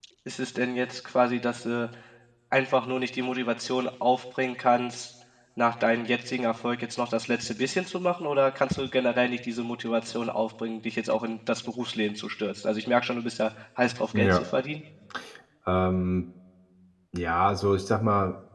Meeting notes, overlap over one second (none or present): none